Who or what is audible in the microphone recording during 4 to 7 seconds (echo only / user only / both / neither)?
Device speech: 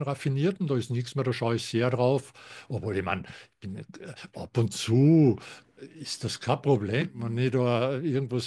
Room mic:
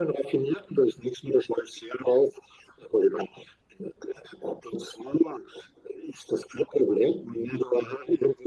echo only